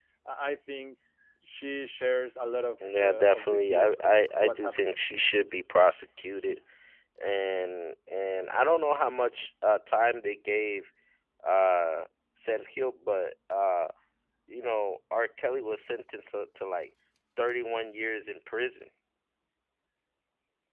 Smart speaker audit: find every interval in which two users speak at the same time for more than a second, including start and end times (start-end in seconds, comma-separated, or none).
3.0-4.8